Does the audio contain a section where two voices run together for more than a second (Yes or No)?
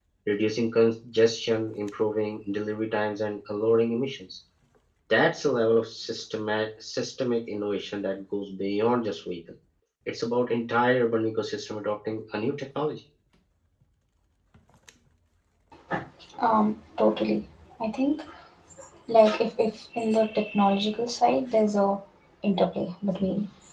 No